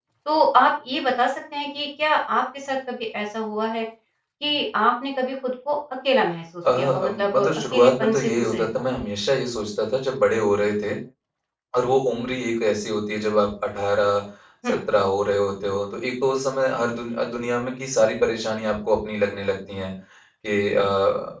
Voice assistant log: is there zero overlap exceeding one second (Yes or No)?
No